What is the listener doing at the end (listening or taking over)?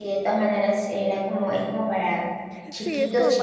taking over